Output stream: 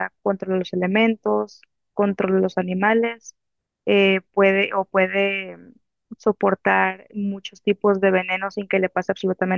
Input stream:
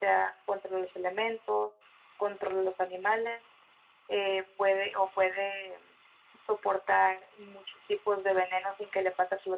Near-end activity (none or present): none